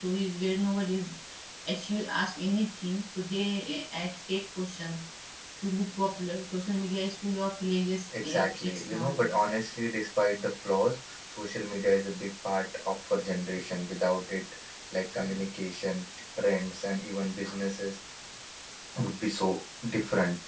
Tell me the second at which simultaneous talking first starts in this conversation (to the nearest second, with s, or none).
8 s